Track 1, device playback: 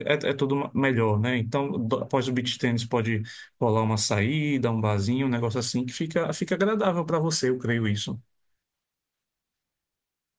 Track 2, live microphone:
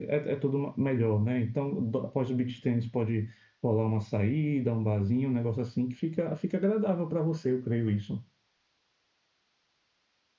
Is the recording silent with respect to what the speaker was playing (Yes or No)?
No